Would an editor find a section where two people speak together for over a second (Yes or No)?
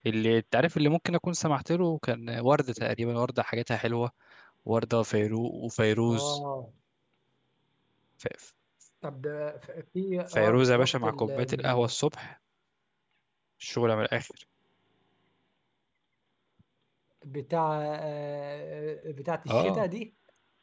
Yes